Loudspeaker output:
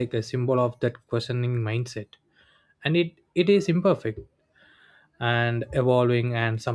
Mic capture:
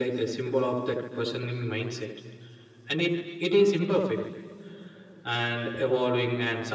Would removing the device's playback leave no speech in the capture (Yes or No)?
Yes